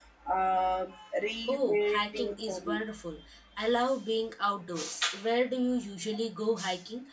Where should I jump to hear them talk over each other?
1 s

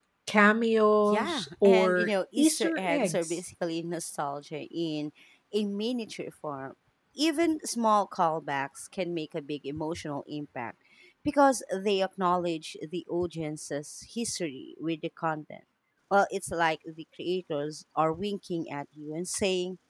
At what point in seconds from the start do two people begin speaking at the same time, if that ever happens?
1 s

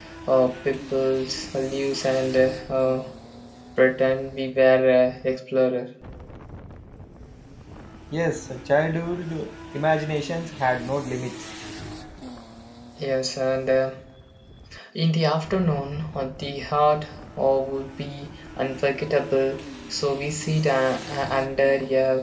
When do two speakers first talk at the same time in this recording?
none

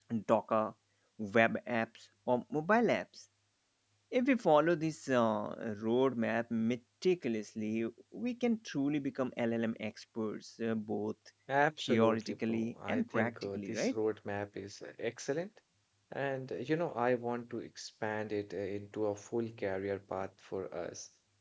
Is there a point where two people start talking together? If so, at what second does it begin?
12 s

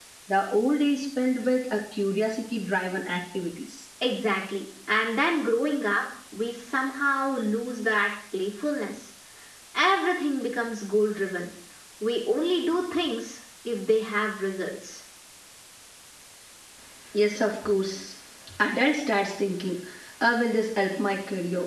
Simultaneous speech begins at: none

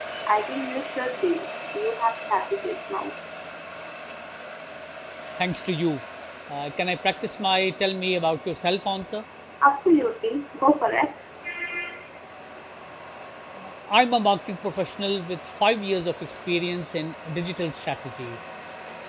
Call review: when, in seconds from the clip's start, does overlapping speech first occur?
none

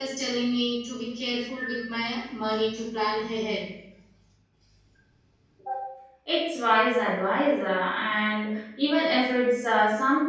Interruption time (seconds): none

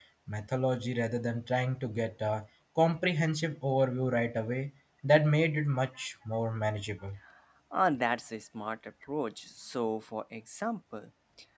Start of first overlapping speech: none

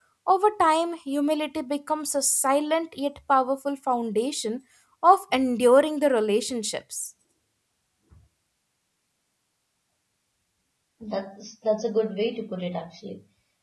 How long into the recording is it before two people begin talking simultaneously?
none

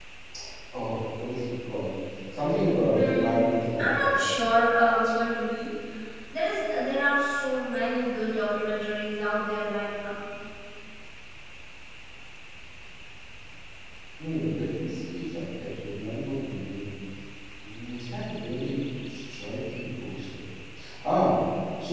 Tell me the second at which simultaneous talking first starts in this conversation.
3 s

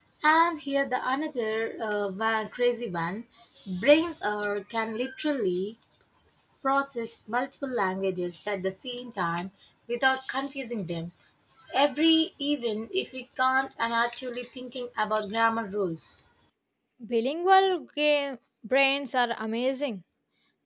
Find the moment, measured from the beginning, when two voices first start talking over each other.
none

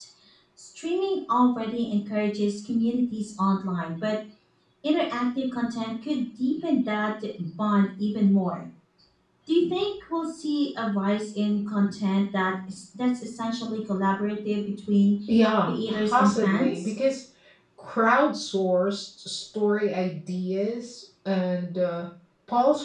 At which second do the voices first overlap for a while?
16 s

